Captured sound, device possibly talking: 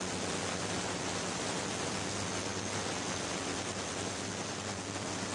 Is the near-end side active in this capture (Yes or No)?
No